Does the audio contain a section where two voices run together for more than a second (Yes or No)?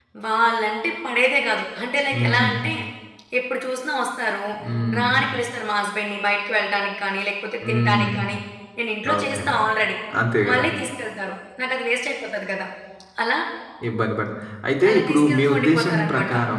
Yes